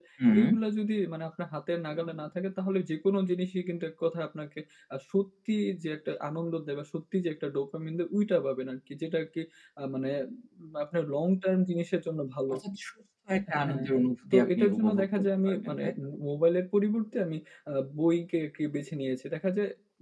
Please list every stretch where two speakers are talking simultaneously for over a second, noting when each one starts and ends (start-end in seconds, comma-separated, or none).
13.7-15.9